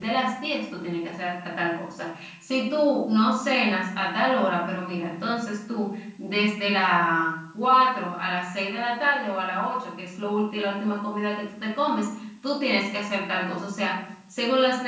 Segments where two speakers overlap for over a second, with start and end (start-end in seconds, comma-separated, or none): none